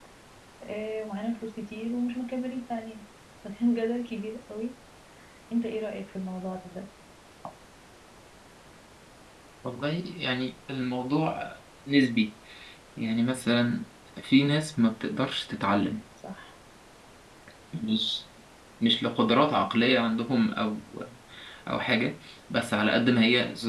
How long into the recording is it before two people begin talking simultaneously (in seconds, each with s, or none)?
none